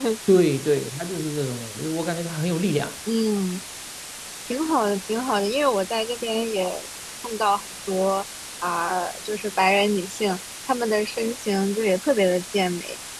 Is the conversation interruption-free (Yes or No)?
Yes